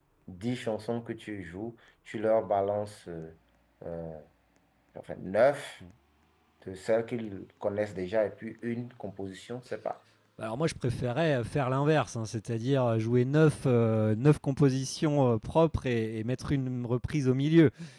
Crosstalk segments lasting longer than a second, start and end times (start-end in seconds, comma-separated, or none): none